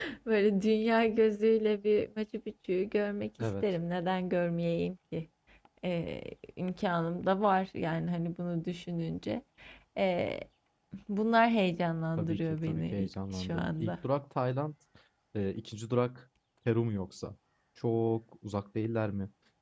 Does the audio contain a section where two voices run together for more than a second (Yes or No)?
Yes